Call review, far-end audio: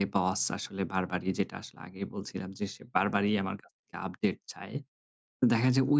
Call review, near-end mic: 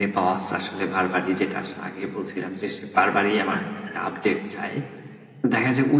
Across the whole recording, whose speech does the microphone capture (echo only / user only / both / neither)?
both